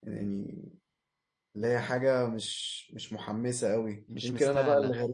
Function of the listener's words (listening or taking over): listening